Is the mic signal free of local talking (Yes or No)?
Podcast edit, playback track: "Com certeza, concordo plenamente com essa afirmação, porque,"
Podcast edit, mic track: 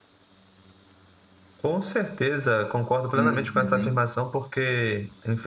No